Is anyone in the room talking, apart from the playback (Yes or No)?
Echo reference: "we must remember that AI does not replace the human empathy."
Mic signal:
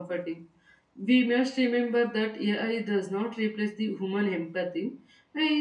No